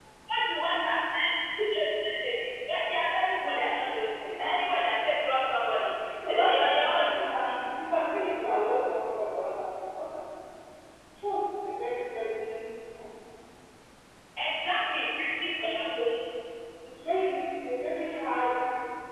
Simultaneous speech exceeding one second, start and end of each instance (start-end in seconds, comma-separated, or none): 6.3-7.6